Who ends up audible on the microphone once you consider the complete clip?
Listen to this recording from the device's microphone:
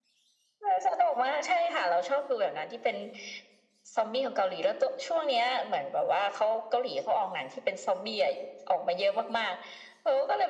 echo only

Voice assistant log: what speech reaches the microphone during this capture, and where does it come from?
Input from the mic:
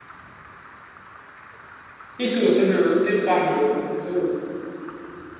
user only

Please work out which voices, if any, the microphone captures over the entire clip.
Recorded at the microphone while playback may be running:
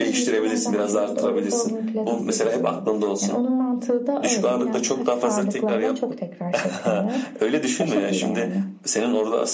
echo only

